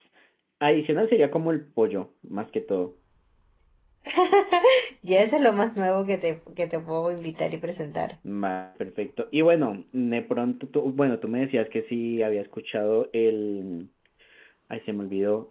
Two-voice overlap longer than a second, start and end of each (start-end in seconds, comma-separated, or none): none